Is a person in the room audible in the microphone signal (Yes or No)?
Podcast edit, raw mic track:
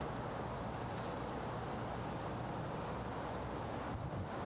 No